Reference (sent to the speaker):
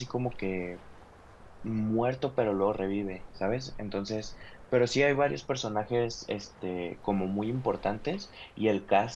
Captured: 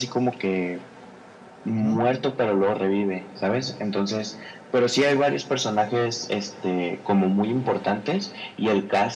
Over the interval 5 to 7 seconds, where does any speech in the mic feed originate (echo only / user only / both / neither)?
echo only